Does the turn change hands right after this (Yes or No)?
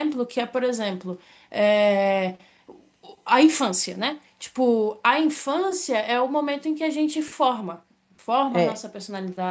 No